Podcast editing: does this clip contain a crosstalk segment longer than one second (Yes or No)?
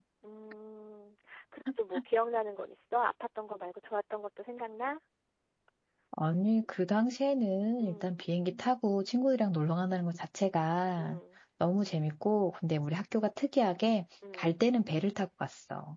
No